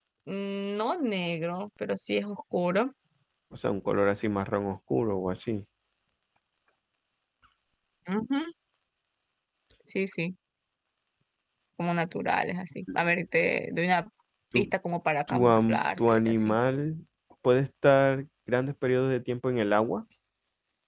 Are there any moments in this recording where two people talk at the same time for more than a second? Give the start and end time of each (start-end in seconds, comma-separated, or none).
15.3-16.6